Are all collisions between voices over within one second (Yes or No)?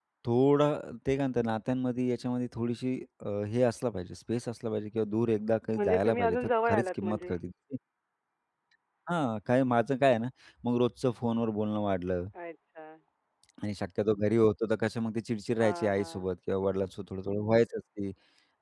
No